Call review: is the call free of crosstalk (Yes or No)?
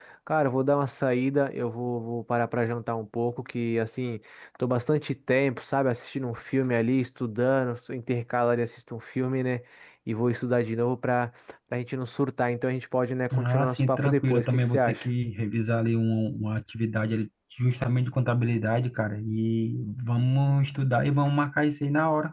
No